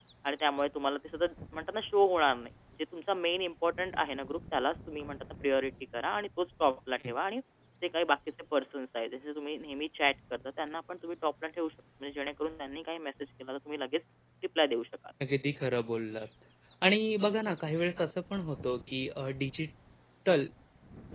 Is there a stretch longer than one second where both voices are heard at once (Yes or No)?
No